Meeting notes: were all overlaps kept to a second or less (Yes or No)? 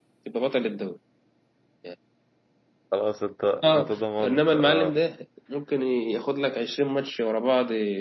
No